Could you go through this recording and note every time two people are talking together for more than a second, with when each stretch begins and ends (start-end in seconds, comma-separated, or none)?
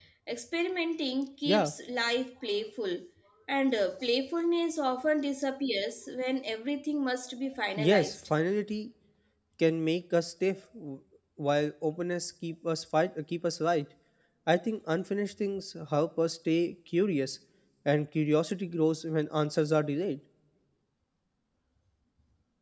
none